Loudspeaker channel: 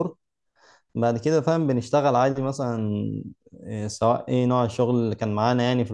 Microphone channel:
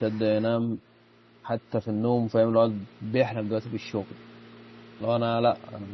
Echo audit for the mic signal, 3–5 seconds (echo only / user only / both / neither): user only